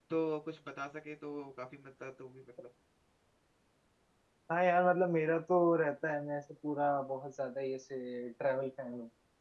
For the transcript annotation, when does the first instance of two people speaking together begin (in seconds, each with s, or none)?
none